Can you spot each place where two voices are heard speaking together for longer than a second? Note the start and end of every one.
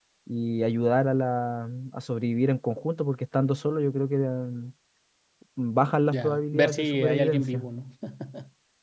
6.1-7.7

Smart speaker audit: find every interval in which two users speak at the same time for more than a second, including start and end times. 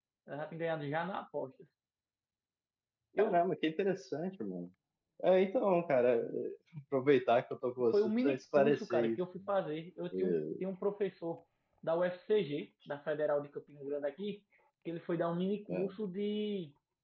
7.9-9.2

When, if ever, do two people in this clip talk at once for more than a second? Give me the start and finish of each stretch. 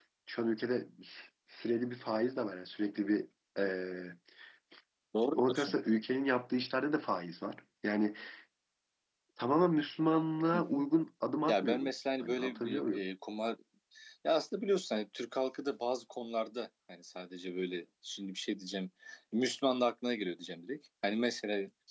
11.5-13.0

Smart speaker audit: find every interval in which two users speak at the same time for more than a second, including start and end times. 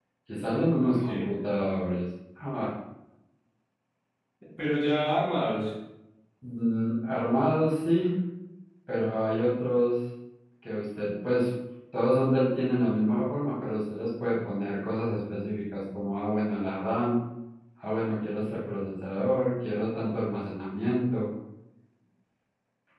none

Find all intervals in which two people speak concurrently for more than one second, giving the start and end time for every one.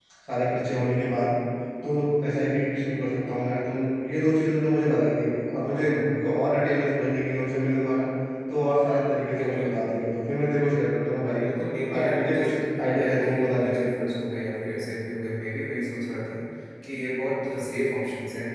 11.9-14.1

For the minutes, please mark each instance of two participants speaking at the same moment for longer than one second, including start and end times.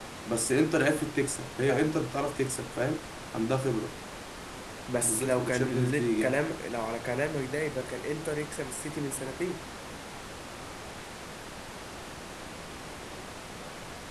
5.0-6.4

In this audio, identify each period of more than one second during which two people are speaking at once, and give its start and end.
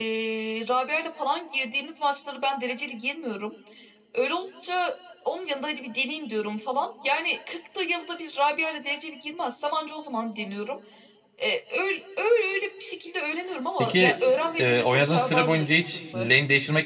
14.6-16.3

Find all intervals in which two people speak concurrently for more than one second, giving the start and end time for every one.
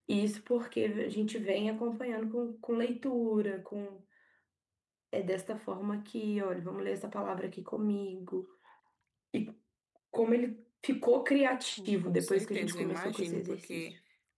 12.0-13.8

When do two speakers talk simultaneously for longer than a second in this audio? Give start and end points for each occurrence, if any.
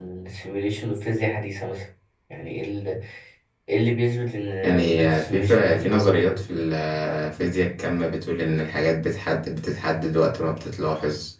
4.6-6.4

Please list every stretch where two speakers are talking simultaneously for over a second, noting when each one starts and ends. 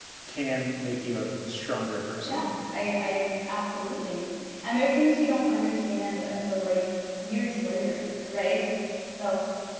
none

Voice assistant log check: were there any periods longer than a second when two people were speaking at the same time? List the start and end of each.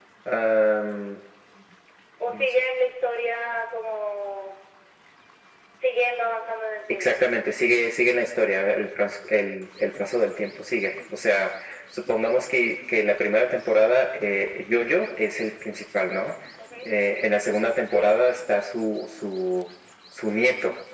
none

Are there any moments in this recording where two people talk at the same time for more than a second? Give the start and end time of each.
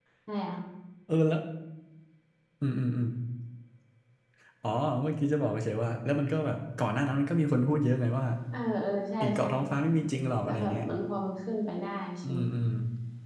none

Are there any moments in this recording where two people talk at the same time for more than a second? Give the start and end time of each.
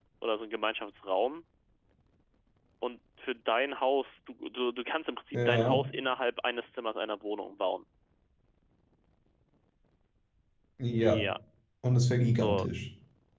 none

